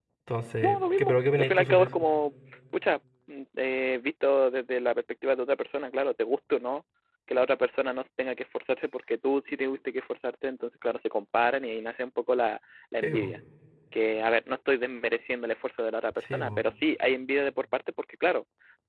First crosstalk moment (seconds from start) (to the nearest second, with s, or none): 1 s